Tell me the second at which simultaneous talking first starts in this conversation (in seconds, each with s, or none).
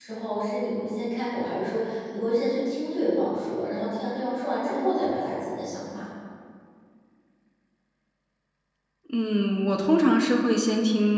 none